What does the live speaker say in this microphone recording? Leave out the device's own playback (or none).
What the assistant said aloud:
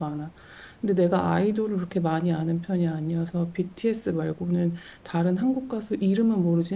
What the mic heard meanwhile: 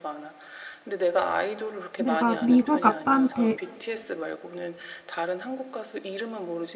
내가 미국 아빠한테